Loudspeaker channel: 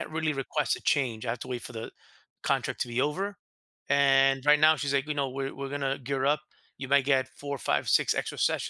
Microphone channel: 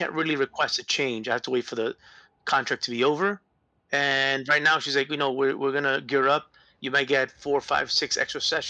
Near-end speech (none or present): none